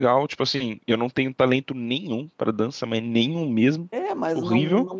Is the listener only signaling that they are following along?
No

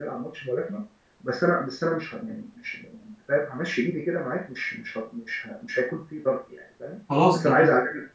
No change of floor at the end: Yes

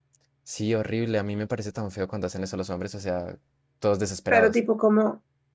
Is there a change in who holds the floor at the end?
Yes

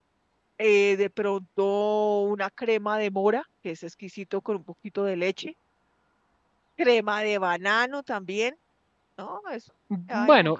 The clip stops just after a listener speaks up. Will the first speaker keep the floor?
No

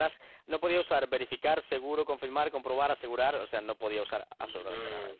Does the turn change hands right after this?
Yes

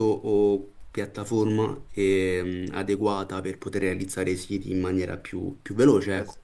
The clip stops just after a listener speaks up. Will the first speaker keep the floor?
No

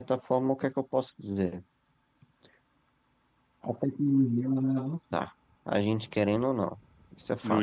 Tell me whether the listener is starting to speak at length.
Yes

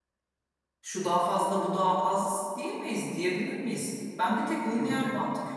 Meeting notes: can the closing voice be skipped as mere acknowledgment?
Yes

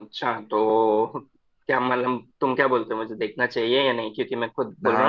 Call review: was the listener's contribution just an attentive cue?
No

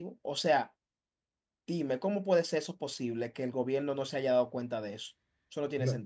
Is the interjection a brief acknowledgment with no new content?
No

